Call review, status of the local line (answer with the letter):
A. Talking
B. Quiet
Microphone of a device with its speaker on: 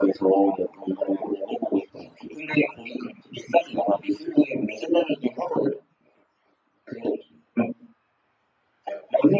B